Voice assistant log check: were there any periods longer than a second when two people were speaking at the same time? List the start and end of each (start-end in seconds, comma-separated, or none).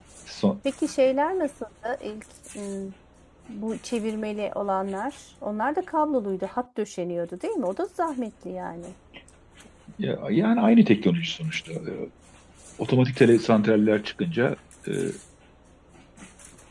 none